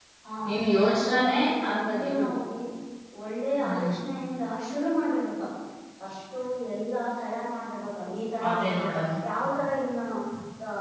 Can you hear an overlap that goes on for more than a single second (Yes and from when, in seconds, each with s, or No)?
Yes, from 1.0 s